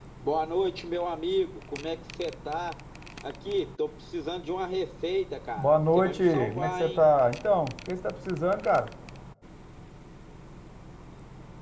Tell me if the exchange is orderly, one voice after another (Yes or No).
No